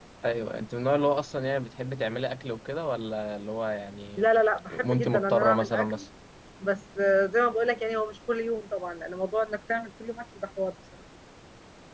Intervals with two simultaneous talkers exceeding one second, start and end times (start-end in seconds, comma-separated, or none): 4.7-6.0